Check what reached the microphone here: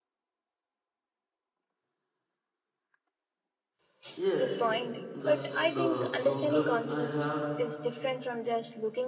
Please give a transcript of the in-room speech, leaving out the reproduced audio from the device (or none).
Yes, that's the problem I have.